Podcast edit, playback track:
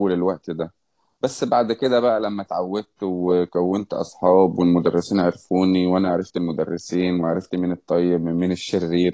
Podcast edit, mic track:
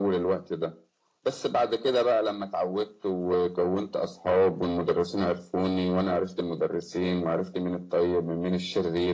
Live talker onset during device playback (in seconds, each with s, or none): none